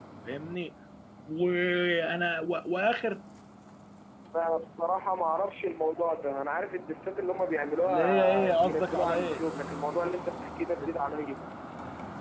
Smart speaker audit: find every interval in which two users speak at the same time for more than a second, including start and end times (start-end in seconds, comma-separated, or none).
7.8-9.4